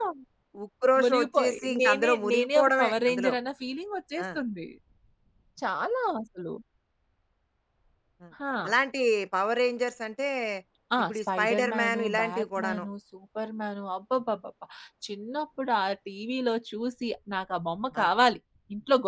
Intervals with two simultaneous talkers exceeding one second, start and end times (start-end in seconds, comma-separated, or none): 1.0-3.3, 11.1-12.8